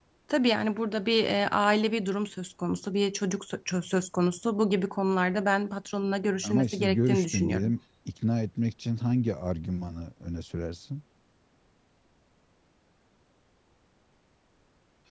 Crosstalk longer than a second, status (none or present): present